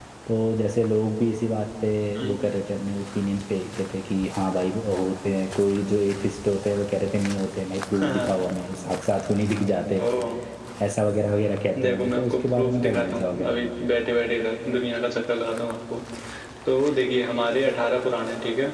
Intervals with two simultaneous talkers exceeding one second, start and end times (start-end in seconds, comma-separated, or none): 11.8-13.6